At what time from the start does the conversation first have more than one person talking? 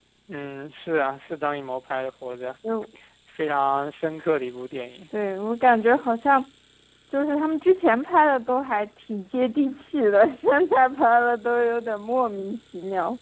none

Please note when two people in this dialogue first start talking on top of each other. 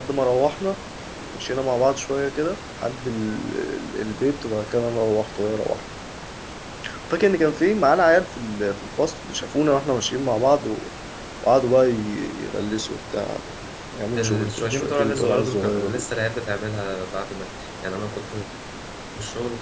14 s

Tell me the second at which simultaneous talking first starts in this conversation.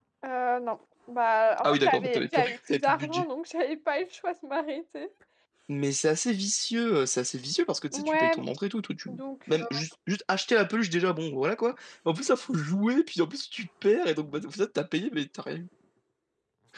2 s

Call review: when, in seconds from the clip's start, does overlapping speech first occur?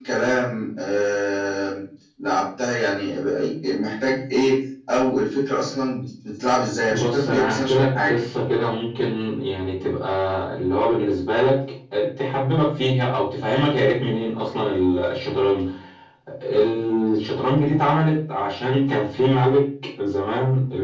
7 s

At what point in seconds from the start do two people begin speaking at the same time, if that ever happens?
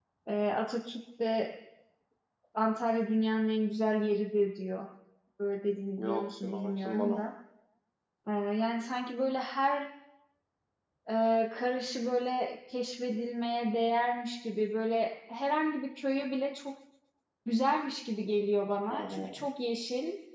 6 s

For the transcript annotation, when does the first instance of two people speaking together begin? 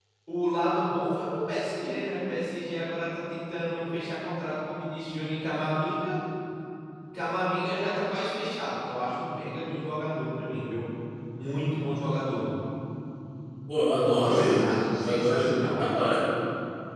14 s

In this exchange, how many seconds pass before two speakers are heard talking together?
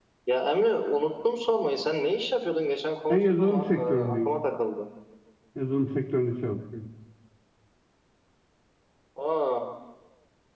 3 s

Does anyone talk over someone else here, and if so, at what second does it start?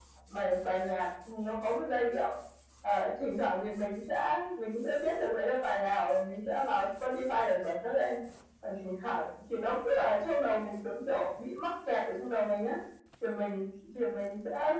none

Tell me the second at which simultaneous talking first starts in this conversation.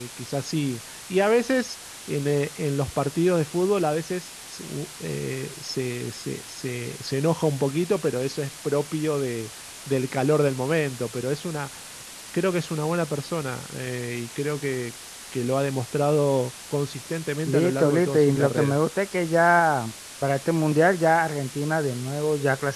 17 s

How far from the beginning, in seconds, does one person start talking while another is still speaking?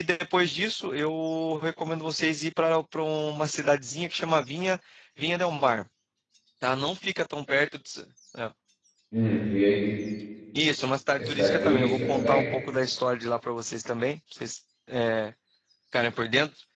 11 s

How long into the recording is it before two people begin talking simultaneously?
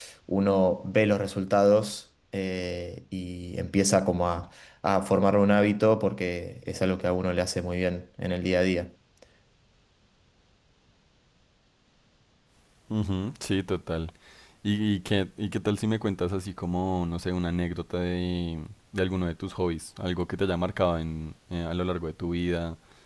none

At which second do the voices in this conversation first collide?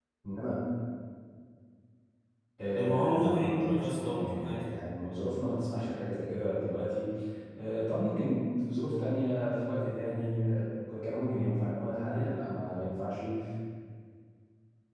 3 s

